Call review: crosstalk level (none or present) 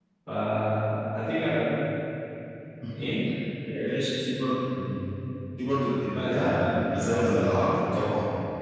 present